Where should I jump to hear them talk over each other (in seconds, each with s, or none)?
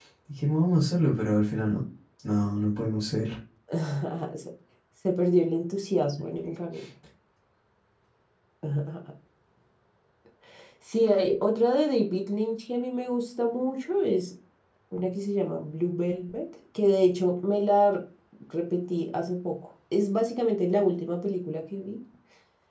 none